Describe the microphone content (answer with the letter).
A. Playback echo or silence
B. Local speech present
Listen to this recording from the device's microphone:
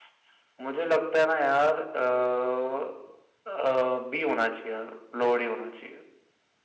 A